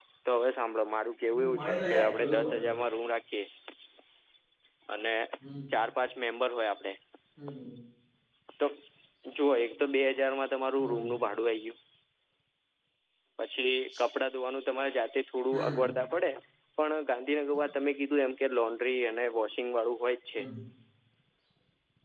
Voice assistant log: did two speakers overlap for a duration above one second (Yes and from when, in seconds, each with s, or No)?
Yes, from 1.3 s